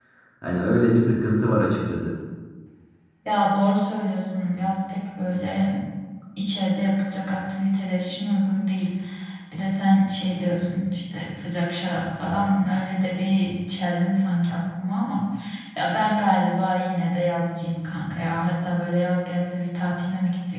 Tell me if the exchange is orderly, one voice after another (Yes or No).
Yes